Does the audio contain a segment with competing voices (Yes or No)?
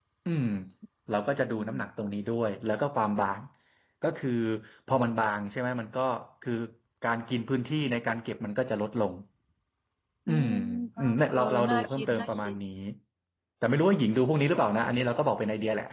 Yes